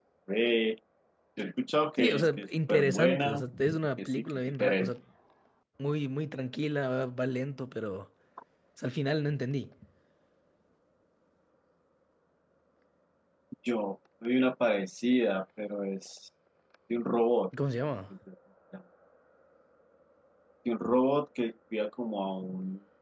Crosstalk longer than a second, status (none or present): present